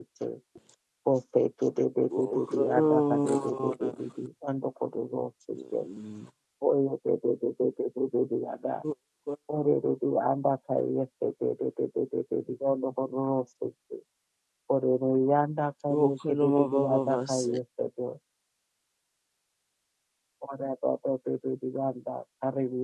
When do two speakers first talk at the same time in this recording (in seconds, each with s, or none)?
2.2 s